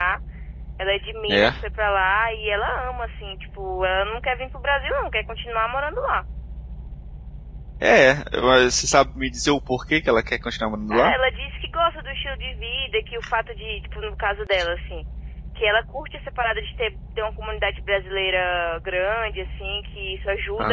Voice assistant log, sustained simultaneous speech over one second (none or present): none